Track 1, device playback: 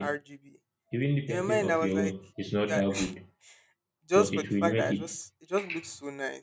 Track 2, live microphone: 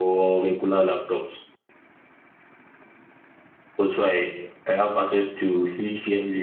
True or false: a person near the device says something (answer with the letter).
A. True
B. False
A